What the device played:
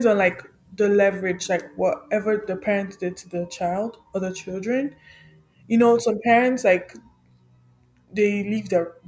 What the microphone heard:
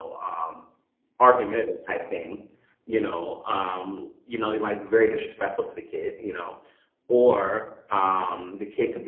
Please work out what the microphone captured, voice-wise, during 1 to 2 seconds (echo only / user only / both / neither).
user only